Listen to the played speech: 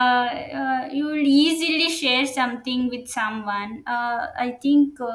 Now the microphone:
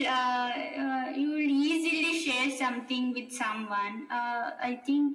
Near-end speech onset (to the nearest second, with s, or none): none